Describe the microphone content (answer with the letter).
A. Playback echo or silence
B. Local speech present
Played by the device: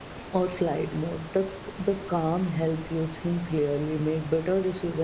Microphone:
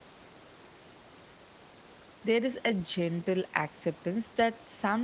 B